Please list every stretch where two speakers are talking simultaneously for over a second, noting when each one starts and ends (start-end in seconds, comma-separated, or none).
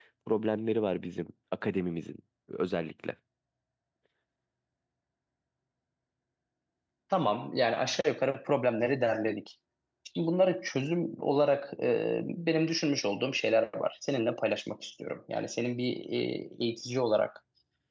none